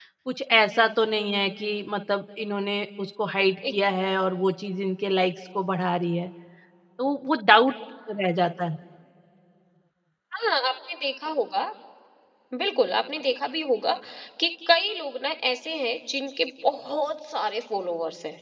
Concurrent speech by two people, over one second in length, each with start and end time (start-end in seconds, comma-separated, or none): none